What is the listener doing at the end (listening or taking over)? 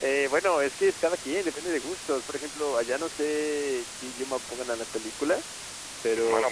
taking over